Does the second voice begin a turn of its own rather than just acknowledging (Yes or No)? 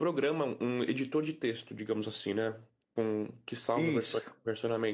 No